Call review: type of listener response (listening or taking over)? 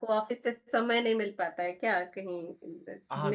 taking over